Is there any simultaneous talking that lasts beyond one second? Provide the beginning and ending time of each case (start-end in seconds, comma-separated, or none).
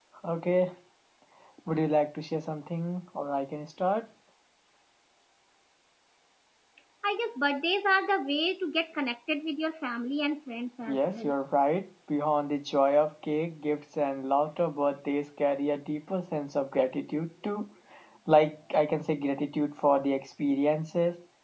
none